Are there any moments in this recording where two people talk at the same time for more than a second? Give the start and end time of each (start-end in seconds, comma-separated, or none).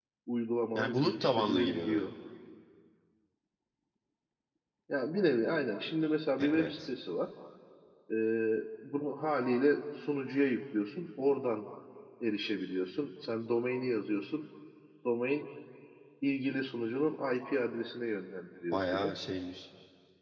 0.8-2.0